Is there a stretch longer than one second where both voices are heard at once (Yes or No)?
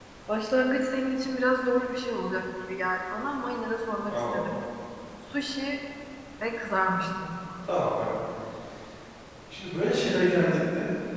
No